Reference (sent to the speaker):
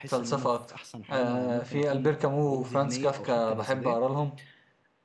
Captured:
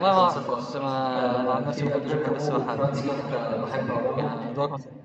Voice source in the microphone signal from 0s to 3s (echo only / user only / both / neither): both